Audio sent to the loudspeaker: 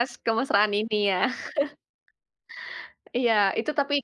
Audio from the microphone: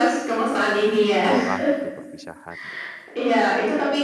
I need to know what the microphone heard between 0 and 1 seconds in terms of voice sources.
echo only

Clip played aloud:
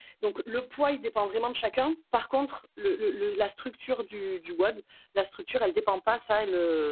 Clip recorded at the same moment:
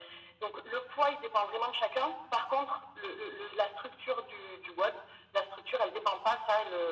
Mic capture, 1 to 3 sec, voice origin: echo only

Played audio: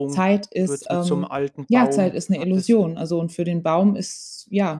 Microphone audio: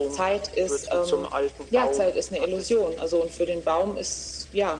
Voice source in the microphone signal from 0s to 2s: echo only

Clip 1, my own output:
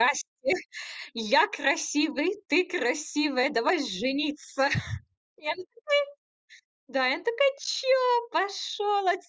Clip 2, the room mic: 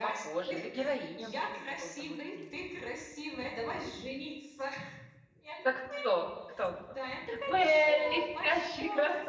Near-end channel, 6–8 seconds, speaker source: both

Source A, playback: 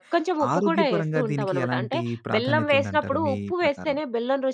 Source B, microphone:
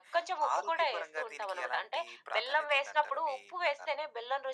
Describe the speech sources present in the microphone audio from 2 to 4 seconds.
echo only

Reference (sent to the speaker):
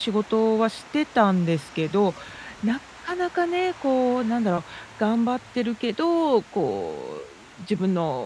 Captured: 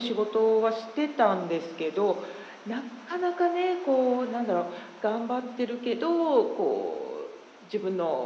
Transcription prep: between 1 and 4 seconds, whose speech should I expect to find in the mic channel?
echo only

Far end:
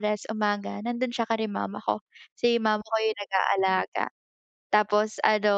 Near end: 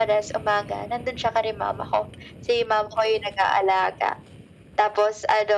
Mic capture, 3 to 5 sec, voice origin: echo only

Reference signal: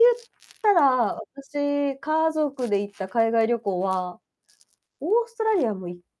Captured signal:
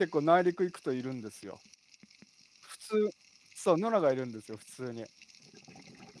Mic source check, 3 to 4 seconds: user only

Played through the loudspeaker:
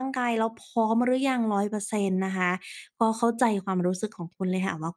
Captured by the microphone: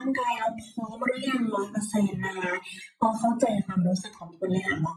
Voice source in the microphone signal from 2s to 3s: echo only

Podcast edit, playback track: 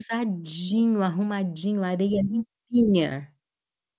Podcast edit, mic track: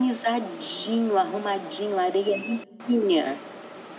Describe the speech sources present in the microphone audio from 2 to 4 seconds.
echo only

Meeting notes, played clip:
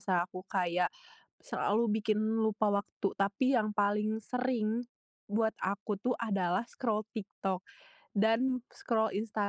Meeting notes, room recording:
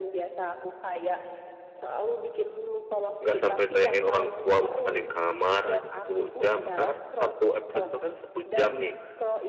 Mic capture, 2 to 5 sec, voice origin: both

